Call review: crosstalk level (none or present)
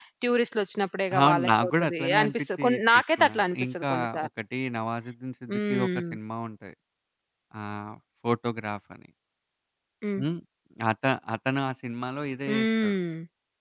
present